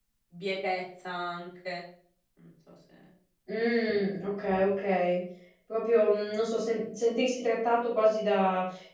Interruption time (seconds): none

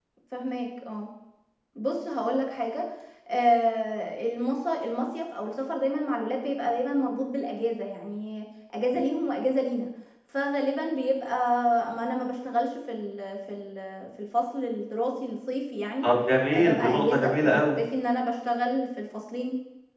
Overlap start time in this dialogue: 16.5 s

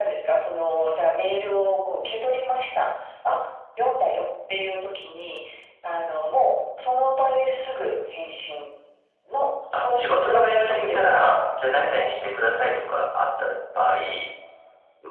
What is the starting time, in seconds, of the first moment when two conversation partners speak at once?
9.8 s

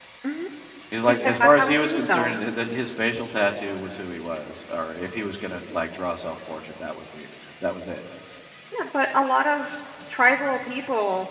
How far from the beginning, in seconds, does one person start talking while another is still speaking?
1.0 s

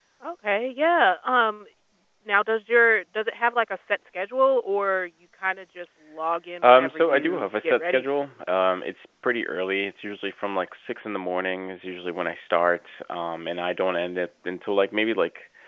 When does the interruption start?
6.6 s

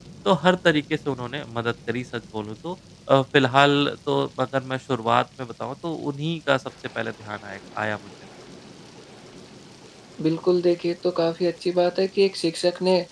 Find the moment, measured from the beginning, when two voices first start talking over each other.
none

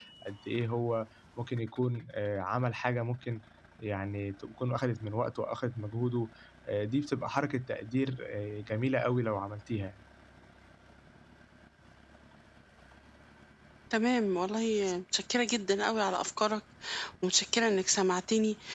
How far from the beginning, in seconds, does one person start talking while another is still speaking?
none

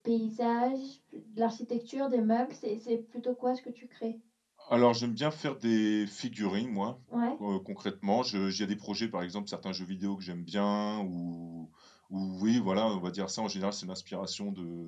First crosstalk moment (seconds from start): none

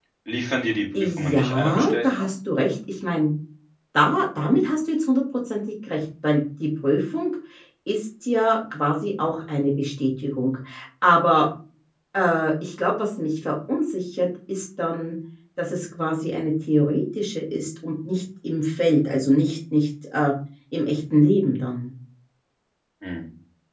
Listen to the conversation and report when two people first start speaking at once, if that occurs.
1.0 s

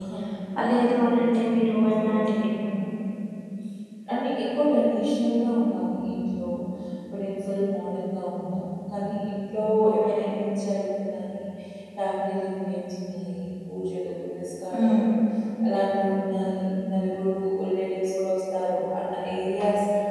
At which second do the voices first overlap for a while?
0.6 s

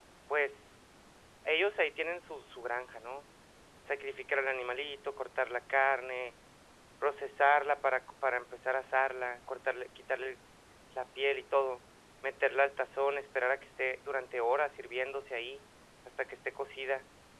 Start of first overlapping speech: none

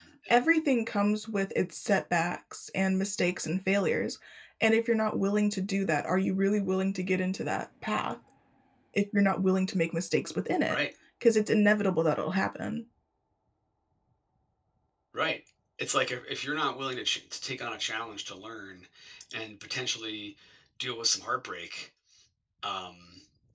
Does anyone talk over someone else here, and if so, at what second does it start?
none

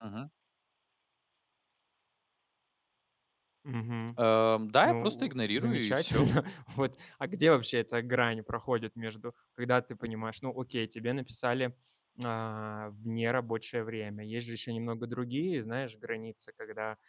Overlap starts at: 4.8 s

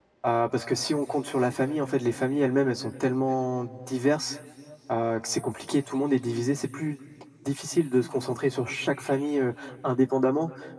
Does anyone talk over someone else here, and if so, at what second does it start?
none

